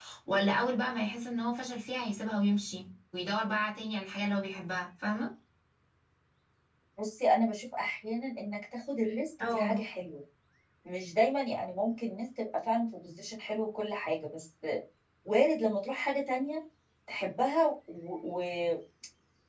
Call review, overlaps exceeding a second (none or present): none